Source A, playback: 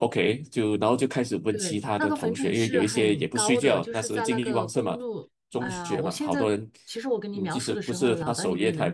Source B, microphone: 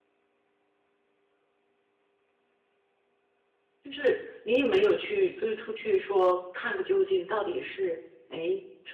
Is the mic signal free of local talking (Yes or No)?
No